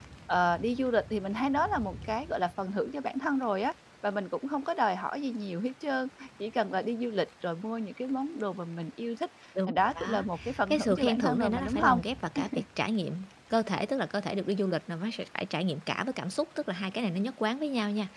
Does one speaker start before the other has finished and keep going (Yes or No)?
Yes